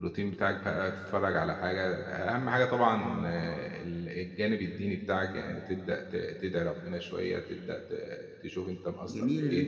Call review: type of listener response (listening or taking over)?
taking over